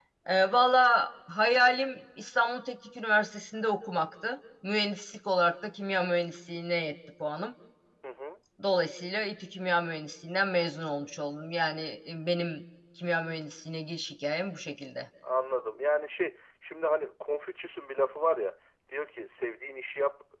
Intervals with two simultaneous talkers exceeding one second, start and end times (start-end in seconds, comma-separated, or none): none